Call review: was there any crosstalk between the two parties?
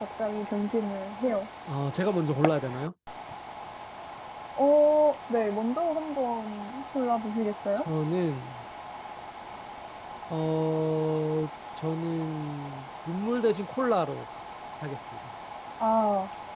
No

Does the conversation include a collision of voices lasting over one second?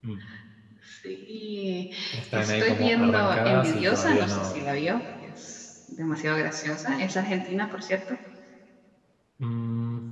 Yes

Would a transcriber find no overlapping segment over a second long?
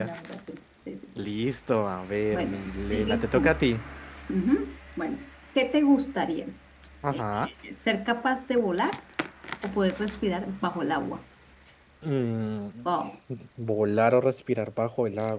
No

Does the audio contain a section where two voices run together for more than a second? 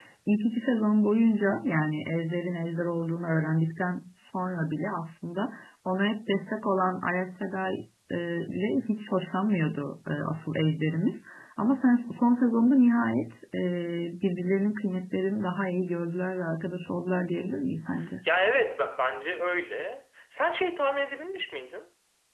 No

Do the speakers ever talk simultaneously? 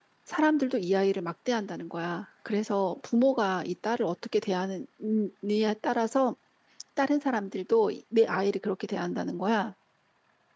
No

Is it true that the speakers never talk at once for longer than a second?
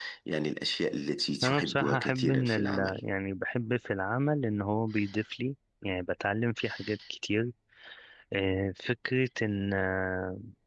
No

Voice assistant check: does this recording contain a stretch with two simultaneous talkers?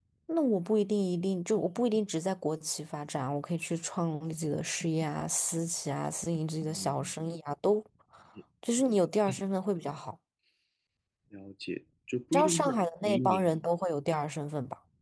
Yes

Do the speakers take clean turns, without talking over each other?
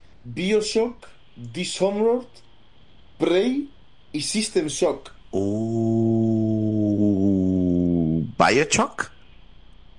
Yes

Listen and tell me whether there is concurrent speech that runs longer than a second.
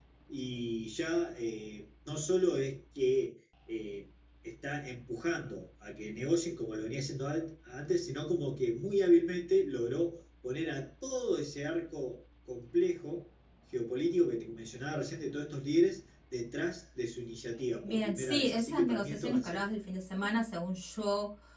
Yes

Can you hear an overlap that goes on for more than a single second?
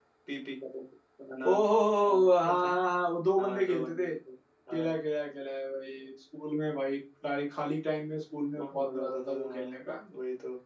Yes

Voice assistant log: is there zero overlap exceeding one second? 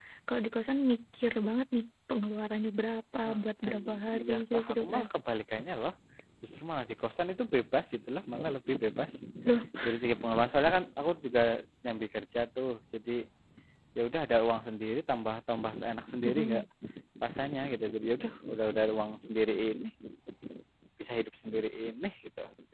No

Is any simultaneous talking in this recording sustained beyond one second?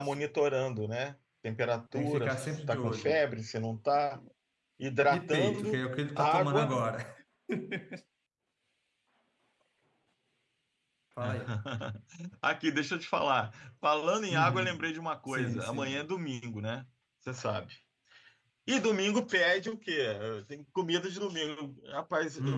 Yes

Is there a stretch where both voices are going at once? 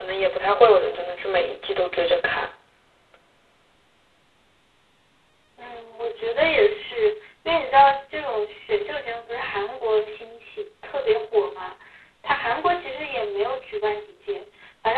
No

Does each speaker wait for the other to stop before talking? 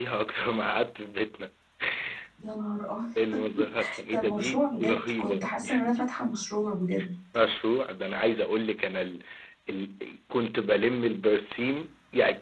No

